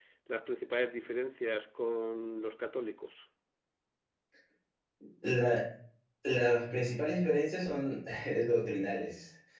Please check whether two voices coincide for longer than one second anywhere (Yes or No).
No